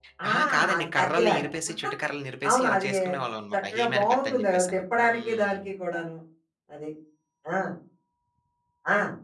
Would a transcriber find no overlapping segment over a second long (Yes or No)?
No